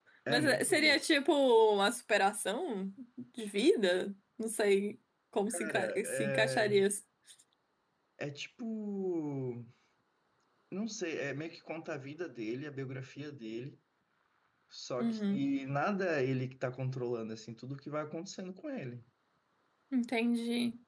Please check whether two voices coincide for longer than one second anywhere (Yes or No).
Yes